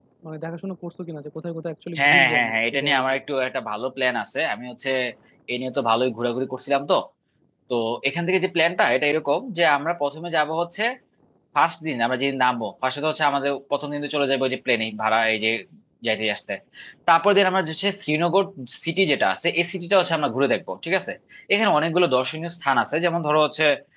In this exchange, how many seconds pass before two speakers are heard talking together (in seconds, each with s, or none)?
2.0 s